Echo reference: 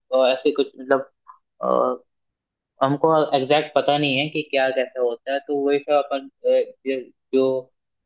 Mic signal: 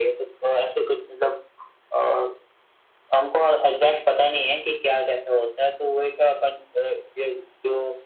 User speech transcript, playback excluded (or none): none